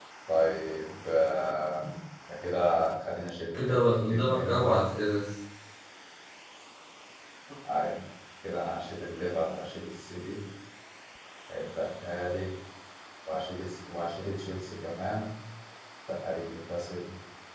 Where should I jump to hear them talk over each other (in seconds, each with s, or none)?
3.5 s